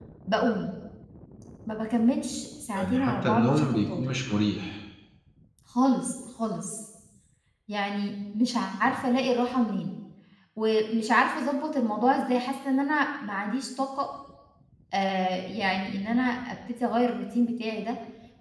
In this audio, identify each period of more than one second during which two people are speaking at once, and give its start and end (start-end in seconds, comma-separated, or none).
2.8-4.0